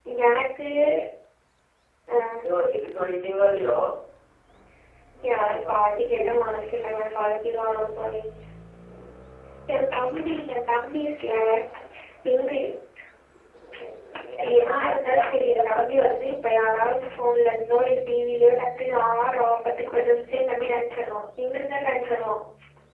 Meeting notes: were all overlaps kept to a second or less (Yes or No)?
No